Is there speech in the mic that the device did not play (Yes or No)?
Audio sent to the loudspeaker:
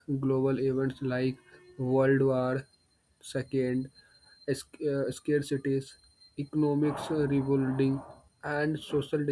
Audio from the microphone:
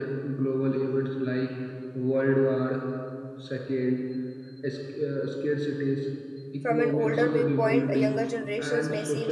Yes